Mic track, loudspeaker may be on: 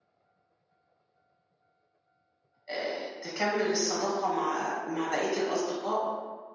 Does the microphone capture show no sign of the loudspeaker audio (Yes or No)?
Yes